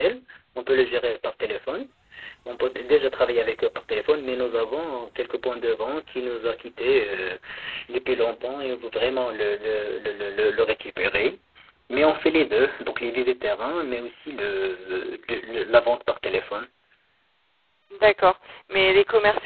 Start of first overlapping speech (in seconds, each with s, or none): none